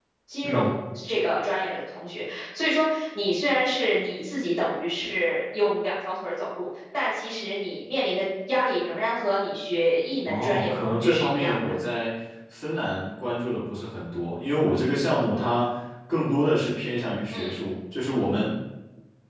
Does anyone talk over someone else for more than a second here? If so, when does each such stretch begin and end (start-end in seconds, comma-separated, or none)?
10.3-11.6